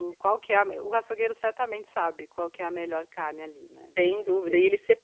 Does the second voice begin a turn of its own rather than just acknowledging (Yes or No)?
Yes